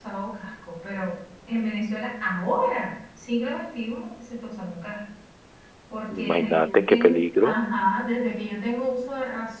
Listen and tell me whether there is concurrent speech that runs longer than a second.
Yes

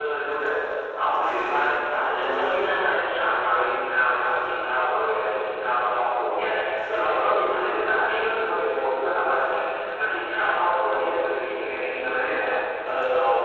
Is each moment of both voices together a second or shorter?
No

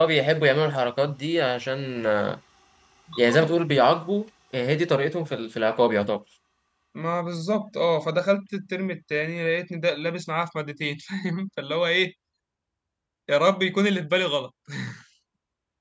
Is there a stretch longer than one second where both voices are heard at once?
No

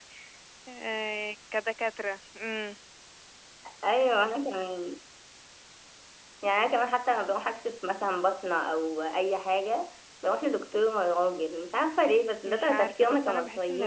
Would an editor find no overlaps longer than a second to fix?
No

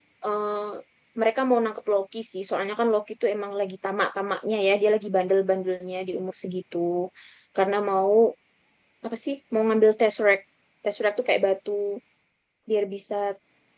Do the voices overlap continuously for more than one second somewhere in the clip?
No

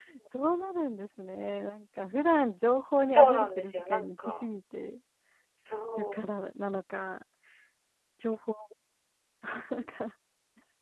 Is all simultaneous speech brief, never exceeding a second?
No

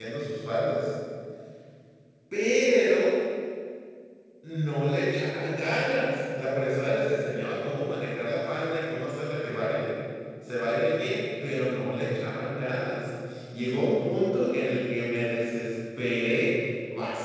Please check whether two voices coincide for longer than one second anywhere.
No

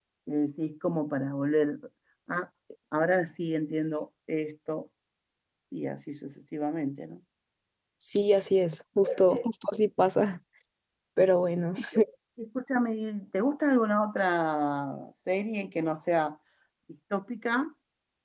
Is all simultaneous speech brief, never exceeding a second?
Yes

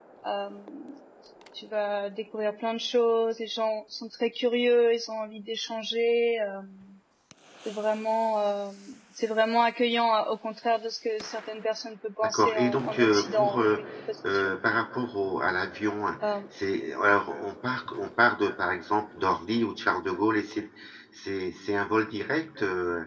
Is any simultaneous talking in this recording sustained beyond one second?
Yes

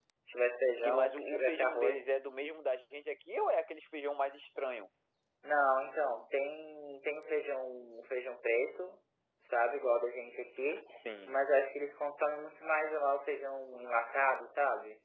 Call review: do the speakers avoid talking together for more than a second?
No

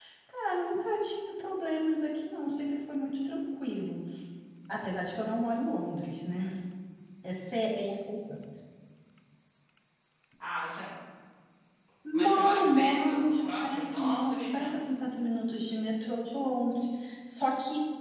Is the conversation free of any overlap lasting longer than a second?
No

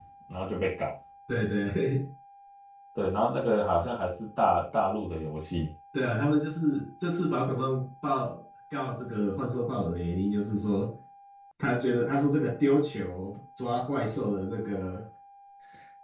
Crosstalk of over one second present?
No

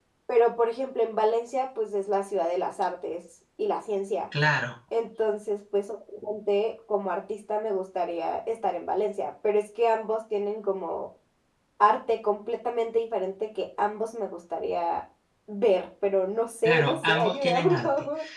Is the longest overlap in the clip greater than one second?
Yes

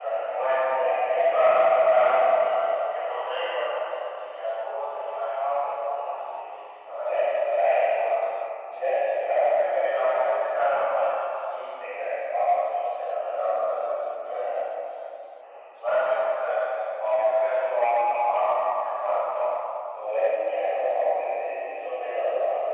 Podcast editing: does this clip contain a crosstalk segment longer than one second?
Yes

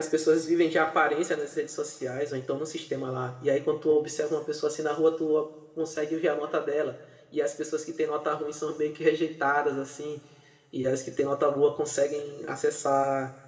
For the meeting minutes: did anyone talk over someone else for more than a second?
No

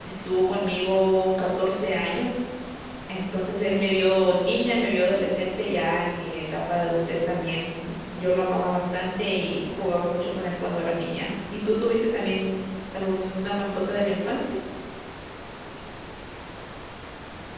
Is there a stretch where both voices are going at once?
No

